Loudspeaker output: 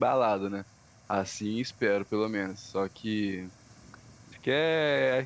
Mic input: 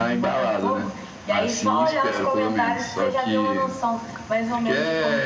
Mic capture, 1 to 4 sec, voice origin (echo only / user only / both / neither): both